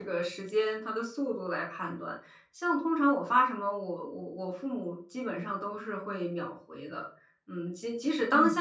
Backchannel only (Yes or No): Yes